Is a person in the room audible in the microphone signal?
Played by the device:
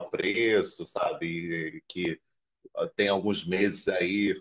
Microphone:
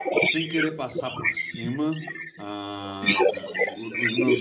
Yes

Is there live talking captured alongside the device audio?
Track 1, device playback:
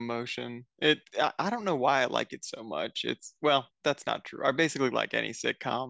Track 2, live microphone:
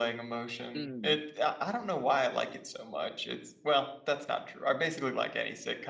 Yes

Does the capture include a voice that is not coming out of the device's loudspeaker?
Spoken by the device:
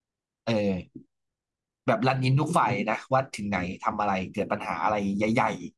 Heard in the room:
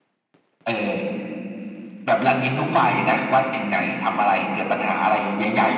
No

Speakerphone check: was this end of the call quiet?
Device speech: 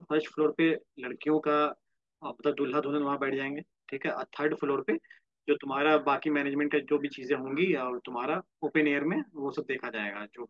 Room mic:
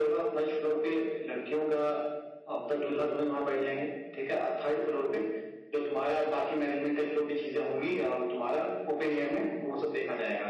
Yes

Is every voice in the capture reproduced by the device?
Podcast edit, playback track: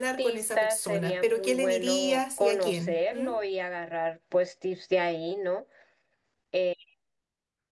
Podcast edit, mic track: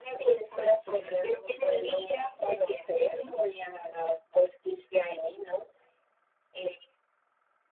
Yes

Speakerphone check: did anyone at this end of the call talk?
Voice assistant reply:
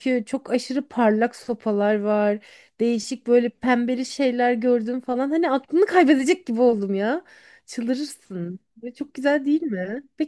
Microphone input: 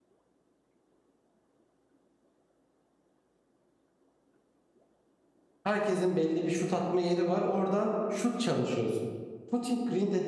Yes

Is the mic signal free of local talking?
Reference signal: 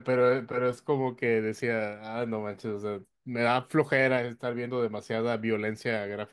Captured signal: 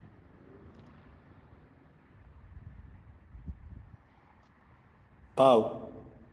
No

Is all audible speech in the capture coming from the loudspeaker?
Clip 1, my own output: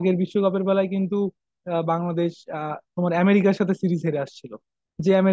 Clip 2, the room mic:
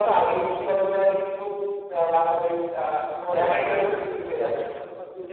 No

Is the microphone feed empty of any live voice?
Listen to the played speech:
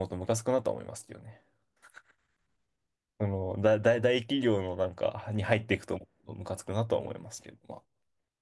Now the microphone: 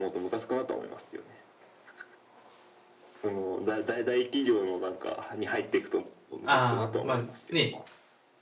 No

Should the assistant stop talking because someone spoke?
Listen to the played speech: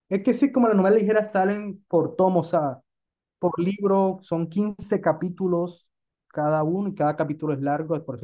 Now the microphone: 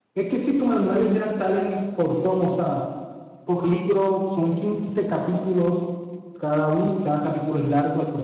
No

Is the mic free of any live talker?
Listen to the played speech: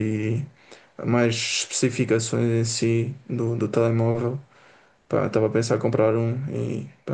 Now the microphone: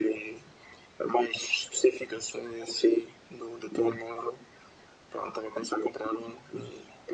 Yes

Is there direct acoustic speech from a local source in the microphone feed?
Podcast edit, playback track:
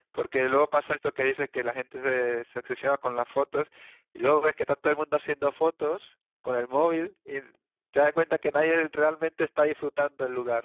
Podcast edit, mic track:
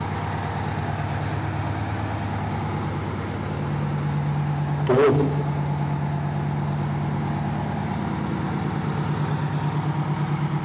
Yes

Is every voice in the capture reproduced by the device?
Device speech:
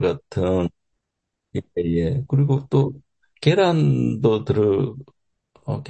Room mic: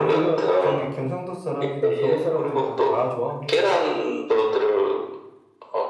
No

